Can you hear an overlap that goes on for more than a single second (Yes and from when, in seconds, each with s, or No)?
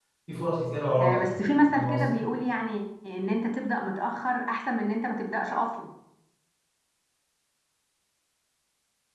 Yes, from 1.0 s